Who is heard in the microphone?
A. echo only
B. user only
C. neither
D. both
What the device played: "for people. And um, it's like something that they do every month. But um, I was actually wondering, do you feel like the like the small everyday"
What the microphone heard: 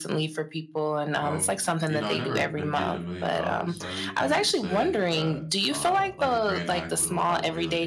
D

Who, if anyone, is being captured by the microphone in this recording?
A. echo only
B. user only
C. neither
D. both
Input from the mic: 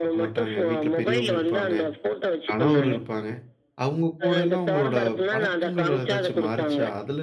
D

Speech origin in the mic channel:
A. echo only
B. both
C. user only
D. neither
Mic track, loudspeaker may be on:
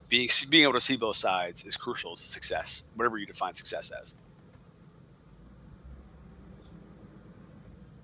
C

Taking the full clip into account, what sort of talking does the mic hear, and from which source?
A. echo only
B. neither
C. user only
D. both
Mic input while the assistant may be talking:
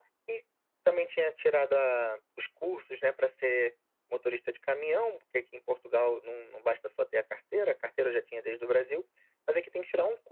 A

